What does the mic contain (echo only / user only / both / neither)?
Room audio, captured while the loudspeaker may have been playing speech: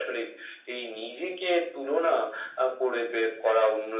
echo only